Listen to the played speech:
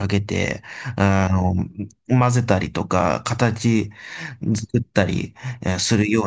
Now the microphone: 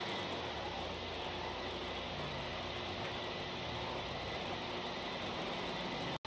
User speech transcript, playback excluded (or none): none